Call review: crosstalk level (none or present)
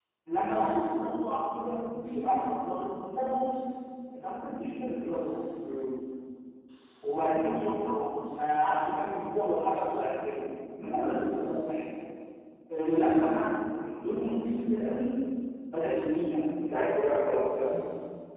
none